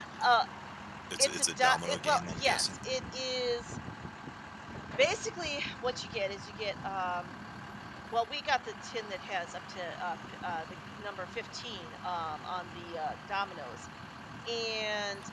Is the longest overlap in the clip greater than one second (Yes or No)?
Yes